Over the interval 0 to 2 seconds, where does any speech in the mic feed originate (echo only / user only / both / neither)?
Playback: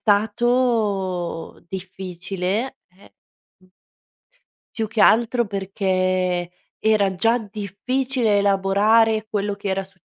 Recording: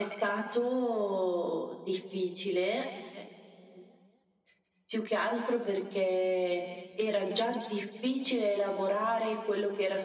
echo only